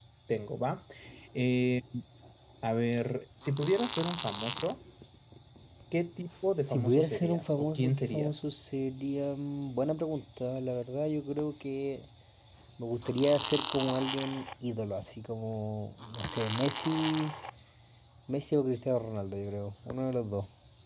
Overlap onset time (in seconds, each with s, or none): 6.7 s